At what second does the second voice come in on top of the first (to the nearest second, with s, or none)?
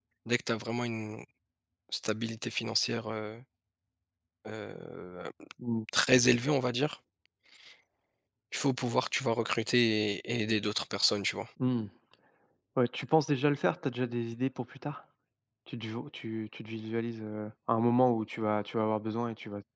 none